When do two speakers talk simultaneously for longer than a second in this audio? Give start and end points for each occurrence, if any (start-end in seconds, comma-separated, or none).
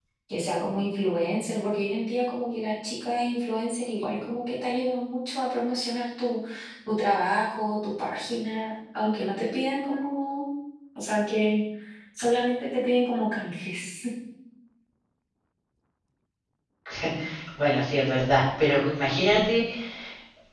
none